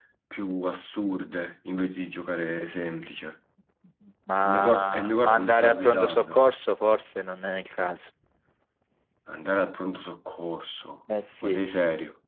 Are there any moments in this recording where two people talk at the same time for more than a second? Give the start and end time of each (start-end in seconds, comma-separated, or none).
4.4-6.4